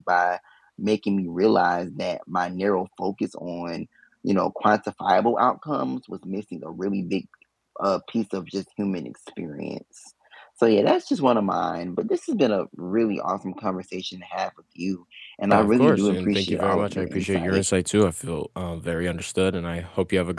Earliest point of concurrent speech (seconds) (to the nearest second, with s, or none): 16 s